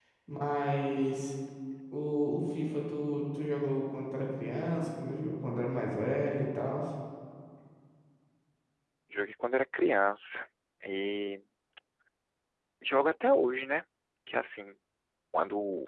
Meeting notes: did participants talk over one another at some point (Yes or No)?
No